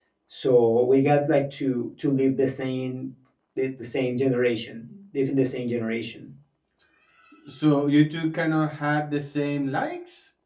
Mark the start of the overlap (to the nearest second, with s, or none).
none